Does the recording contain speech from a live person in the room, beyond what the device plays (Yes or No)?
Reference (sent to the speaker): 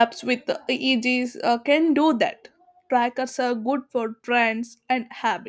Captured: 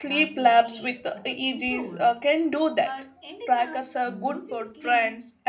Yes